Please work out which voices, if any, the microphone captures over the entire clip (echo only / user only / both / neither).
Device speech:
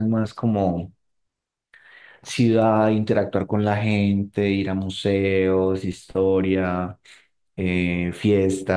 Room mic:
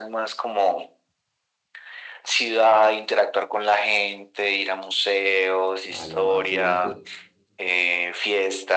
both